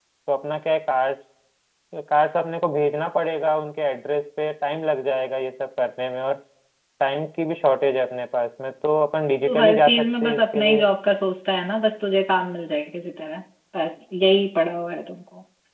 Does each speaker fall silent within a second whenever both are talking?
No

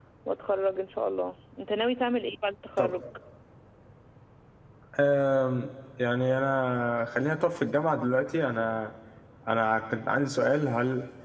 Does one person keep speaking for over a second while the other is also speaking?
No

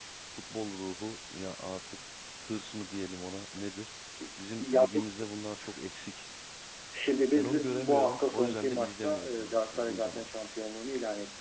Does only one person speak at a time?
No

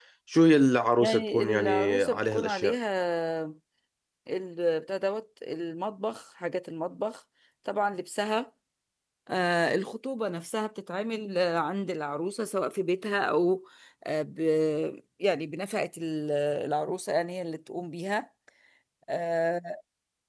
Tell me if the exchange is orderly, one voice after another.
No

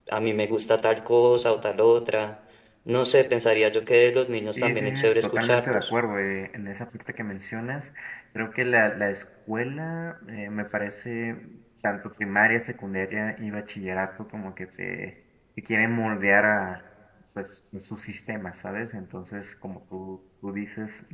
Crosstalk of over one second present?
Yes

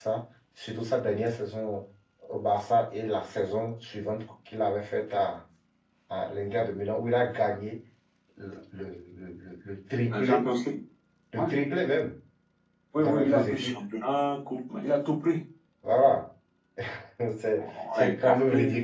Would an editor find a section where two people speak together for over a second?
Yes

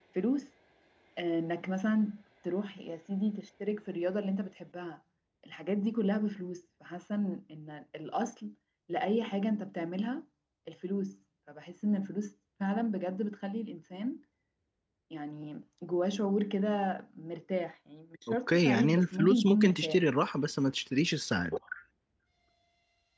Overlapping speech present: Yes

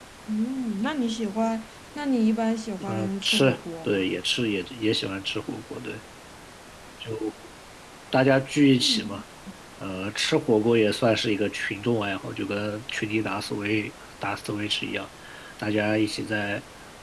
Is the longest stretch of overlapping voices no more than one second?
No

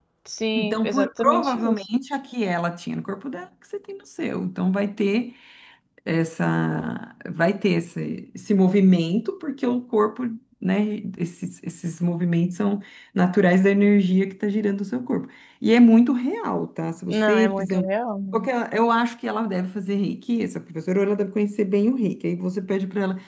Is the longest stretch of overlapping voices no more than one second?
No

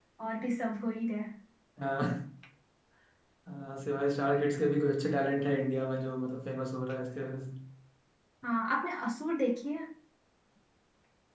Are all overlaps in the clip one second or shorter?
Yes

